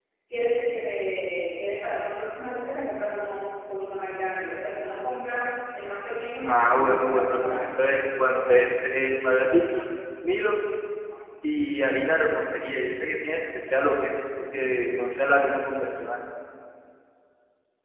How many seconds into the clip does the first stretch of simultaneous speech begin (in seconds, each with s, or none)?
6.4 s